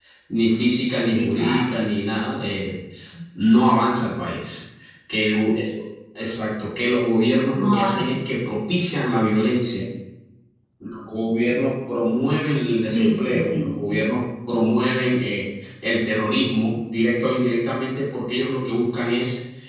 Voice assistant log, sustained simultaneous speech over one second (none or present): present